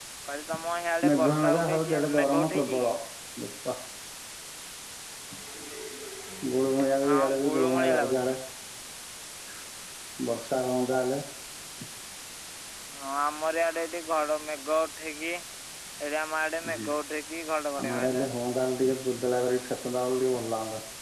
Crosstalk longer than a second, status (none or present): present